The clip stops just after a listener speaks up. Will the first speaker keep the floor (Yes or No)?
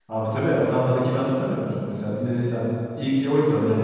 No